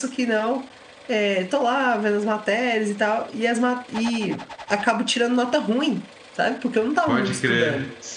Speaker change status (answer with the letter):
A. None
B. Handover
B